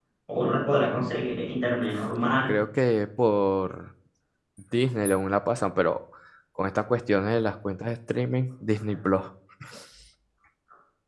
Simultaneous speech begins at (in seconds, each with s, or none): none